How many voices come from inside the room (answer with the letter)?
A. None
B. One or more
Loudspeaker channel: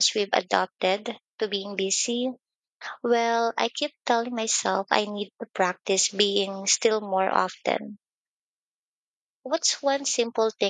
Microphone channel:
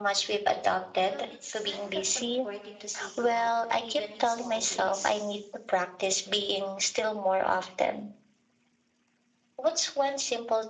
B